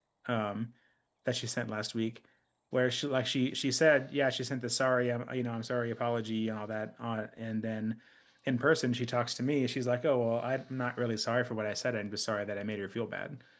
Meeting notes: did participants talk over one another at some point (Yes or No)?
No